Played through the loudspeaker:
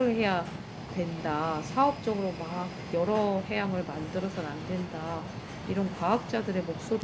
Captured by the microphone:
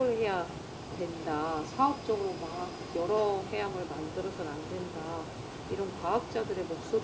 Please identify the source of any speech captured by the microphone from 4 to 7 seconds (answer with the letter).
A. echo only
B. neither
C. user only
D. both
A